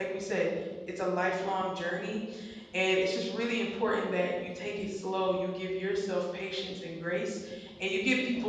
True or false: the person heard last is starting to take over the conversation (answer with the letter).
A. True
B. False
B